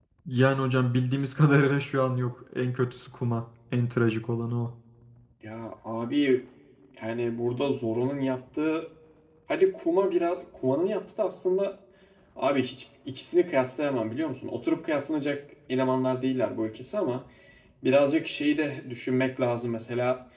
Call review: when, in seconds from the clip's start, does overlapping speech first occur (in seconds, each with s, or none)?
none